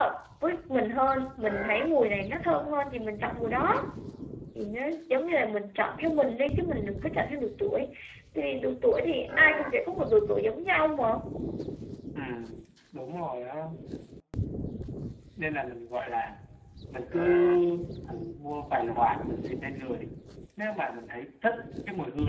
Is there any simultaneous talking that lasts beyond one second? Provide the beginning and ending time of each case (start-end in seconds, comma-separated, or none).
none